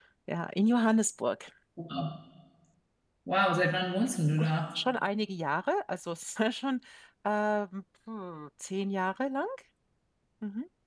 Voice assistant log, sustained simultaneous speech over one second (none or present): none